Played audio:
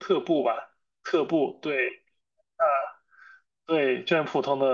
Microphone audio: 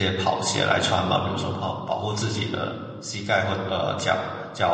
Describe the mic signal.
user only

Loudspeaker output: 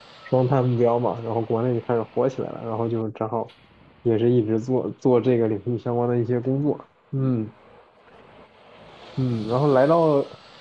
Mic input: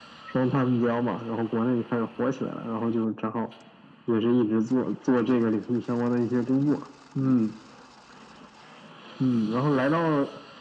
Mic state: echo only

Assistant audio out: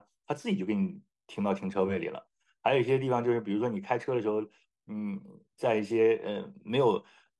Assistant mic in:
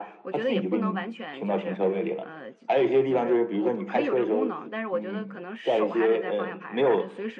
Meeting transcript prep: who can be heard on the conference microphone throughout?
both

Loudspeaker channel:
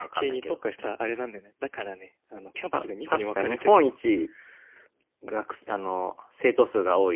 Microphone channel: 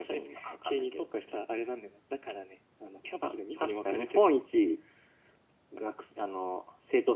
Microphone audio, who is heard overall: echo only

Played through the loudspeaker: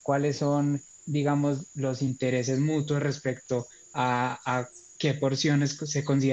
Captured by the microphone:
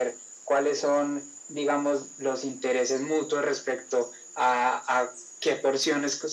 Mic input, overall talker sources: echo only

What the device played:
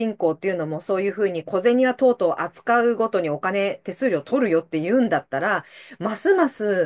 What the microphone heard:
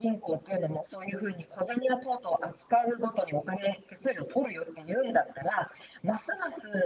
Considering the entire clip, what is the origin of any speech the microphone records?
echo only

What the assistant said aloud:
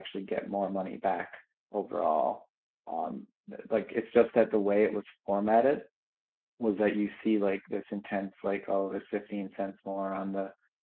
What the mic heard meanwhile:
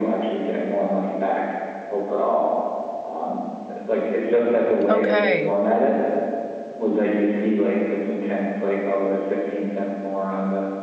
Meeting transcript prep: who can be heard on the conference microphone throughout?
both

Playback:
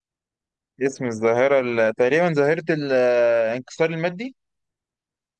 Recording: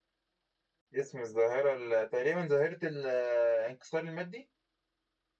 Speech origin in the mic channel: echo only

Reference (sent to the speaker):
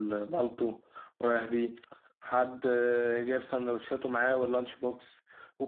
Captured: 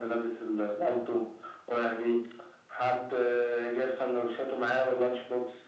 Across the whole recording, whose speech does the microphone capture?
echo only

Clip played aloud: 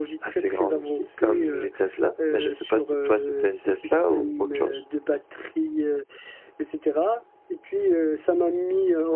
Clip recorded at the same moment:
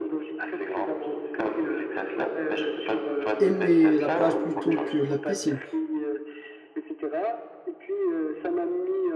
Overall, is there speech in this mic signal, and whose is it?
both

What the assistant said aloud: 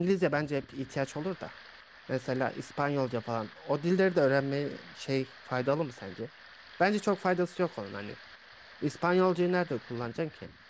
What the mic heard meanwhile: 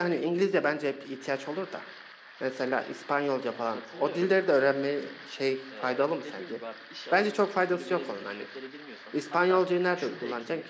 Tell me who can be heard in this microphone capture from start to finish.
both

